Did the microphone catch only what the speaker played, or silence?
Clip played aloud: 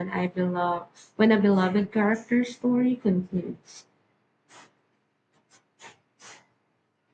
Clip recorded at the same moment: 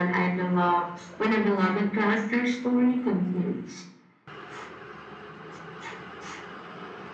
Yes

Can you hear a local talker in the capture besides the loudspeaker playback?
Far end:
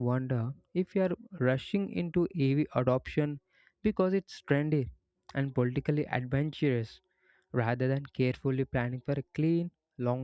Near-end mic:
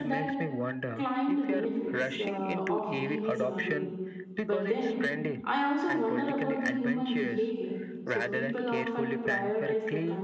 Yes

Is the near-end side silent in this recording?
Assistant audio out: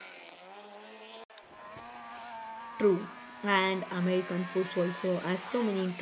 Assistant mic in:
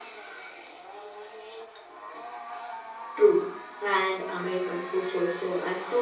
Yes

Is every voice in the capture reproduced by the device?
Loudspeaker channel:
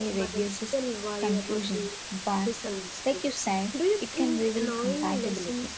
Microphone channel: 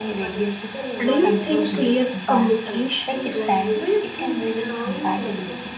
No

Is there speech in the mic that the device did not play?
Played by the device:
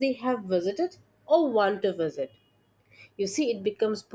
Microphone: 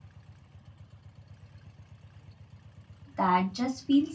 Yes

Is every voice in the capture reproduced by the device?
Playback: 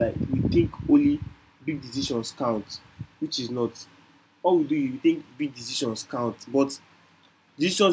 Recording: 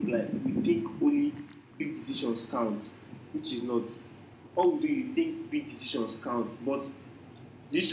Yes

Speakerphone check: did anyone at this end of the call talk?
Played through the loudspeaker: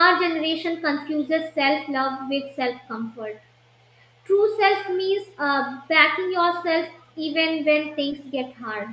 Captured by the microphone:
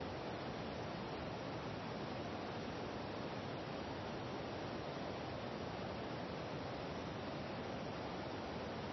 No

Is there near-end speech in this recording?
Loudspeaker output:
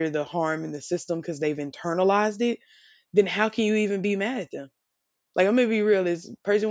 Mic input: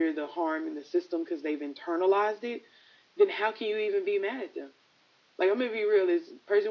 No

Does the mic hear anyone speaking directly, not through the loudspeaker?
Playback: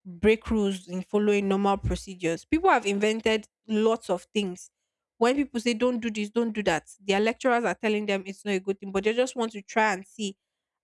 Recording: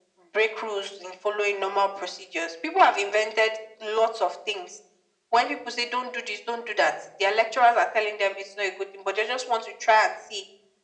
No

